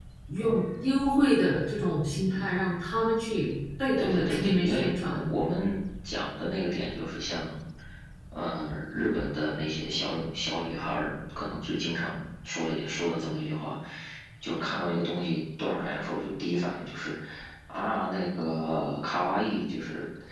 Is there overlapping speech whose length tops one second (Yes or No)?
Yes